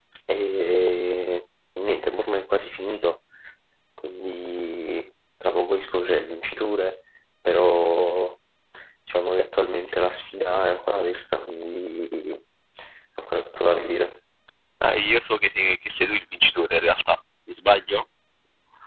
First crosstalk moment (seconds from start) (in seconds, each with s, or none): none